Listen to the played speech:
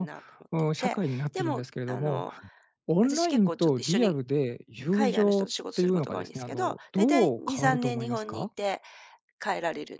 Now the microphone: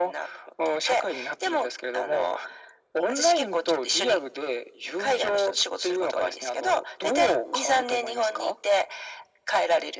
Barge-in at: none

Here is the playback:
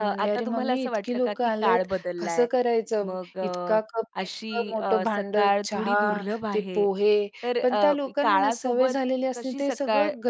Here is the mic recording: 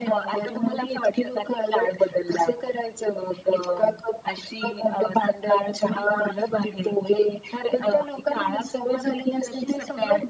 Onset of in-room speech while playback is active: none

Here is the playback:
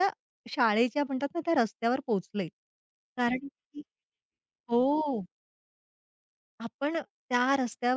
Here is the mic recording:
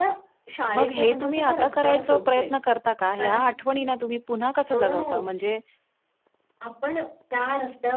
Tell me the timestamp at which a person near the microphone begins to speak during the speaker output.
0.8 s

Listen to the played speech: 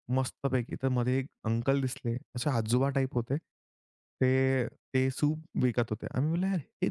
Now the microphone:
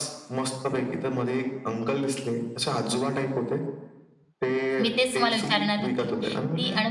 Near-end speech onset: 4.8 s

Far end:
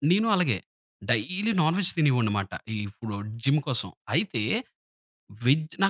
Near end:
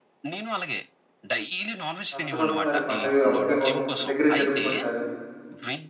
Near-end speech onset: 2.1 s

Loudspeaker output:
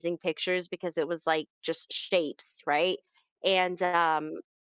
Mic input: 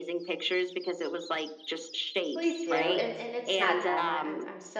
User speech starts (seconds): 2.3 s

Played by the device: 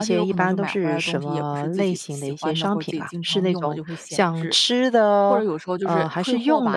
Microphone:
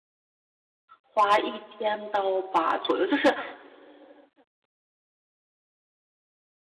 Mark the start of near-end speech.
1.0 s

